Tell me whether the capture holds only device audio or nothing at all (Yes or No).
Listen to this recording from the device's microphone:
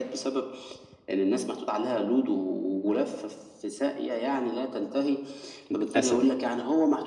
No